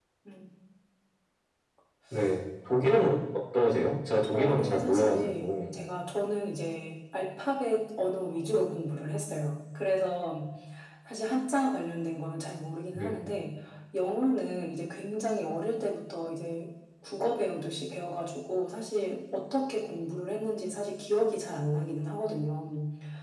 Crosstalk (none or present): present